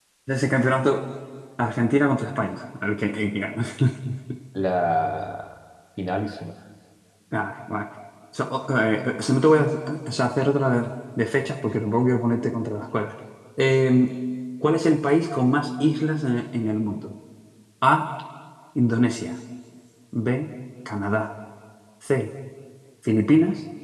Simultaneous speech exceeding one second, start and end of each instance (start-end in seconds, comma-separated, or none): none